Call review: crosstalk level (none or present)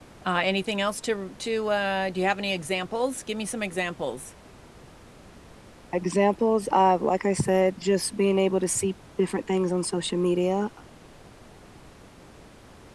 none